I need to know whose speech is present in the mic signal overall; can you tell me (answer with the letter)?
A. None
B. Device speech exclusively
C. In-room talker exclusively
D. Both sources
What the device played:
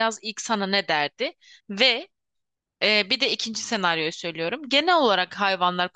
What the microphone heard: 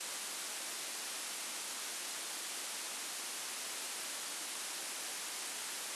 A